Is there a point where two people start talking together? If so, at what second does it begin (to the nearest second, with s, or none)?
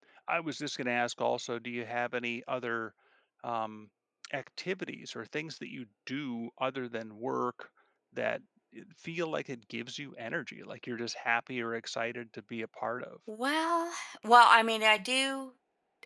none